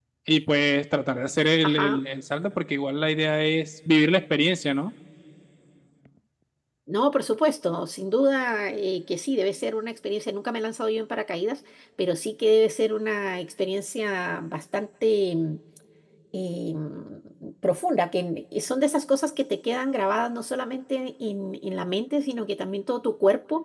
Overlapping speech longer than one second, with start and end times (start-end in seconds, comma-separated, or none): none